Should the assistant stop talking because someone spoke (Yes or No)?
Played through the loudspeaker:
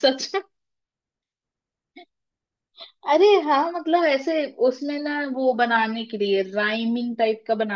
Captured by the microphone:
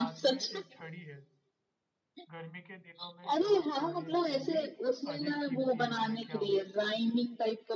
Yes